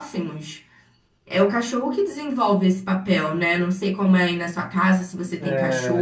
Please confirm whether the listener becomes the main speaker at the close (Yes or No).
Yes